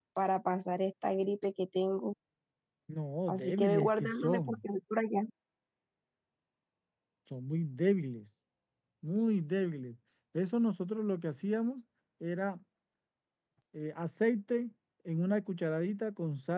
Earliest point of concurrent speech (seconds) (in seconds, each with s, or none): 3.3 s